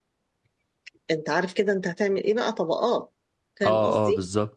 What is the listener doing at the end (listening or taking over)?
taking over